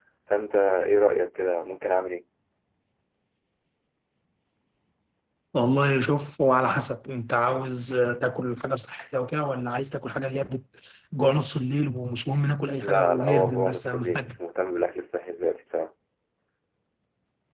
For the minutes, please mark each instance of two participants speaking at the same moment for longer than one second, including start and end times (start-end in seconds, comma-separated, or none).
12.8-14.3